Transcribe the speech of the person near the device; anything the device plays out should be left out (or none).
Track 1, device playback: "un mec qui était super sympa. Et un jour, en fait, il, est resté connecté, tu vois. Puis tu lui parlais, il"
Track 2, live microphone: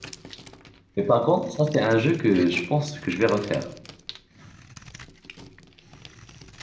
Mais par contre, ça, c'est un jeu que je pense que je vais refaire.